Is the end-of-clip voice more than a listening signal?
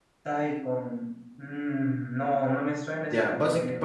Yes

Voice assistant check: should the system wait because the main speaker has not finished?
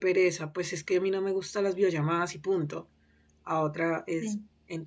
Yes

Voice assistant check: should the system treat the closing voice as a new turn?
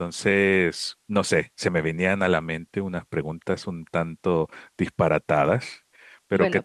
Yes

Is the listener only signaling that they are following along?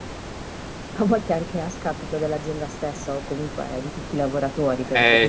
Yes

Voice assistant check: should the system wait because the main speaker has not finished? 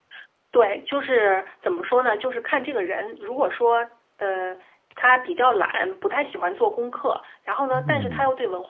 Yes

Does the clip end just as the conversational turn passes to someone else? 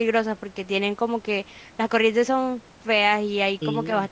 No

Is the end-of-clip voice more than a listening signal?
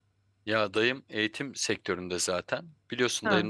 No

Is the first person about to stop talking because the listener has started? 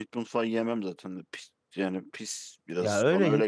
Yes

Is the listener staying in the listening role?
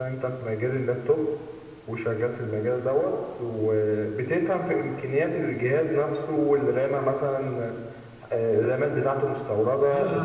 No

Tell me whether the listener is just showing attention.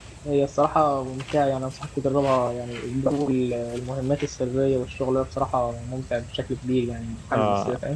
No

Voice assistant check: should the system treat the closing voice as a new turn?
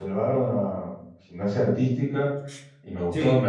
No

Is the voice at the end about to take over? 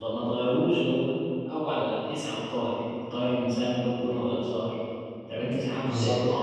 No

